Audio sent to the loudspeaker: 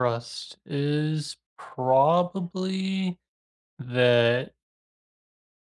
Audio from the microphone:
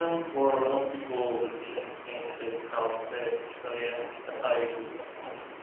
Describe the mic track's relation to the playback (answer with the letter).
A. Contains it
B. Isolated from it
B